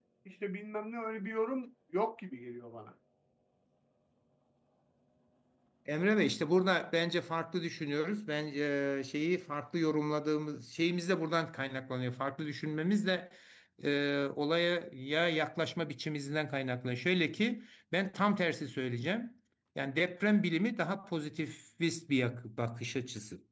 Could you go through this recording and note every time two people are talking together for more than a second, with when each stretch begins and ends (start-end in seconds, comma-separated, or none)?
none